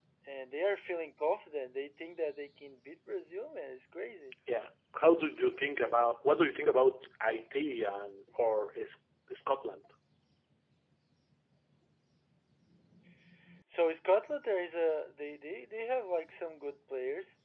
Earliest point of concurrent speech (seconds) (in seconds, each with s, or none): none